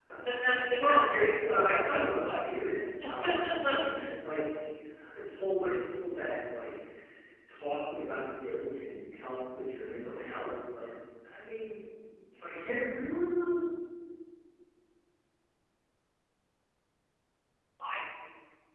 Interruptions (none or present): present